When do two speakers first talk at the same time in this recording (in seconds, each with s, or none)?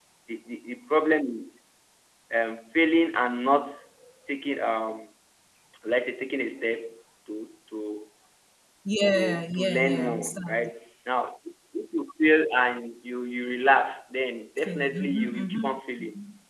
9.1 s